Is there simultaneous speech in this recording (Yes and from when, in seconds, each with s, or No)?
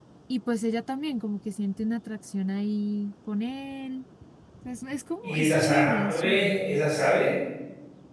Yes, from 5.2 s